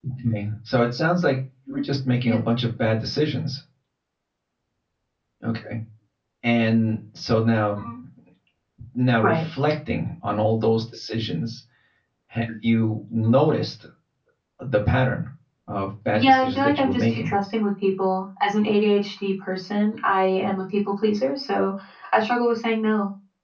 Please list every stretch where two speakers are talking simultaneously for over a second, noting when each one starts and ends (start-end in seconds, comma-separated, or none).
16.1-17.3